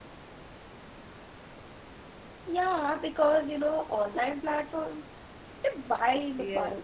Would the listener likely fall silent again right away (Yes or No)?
No